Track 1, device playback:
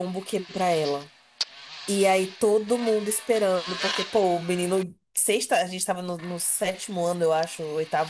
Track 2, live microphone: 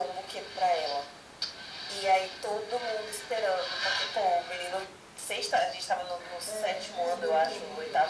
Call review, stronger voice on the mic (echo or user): echo